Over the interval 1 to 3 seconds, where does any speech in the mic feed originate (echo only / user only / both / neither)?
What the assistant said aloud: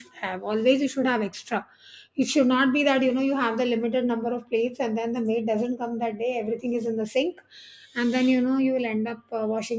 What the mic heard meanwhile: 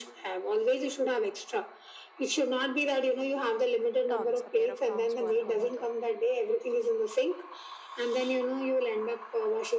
echo only